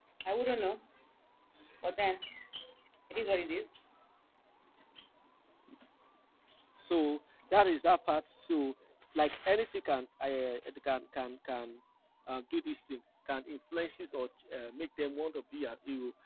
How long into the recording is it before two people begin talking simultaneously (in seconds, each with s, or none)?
none